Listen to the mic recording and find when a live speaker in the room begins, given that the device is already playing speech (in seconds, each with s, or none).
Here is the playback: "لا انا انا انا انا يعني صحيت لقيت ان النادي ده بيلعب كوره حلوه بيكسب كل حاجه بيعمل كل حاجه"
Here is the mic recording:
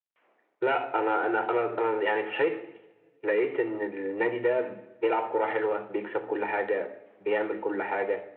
none